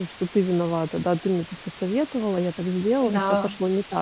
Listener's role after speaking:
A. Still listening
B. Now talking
A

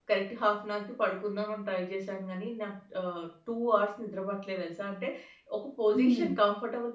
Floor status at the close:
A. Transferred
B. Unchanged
B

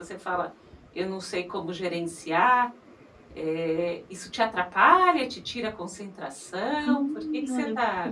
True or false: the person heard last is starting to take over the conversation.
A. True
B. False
A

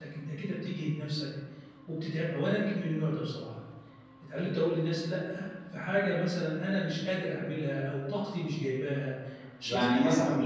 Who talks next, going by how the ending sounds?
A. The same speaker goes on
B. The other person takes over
B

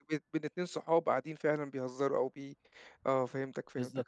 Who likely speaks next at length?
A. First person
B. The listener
B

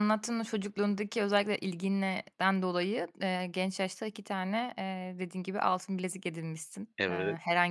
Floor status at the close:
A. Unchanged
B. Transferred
A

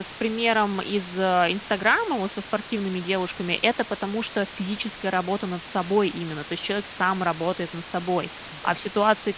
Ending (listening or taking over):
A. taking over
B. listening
B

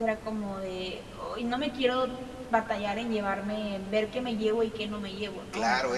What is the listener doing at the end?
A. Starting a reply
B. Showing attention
A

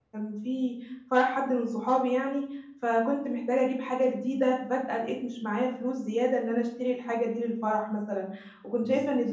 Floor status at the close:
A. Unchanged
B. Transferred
A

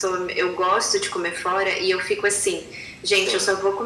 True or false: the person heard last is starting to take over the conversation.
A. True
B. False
B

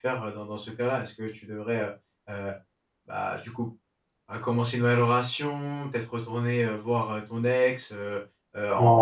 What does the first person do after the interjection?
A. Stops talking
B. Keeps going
A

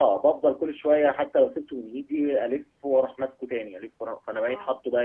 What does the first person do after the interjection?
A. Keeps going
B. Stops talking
B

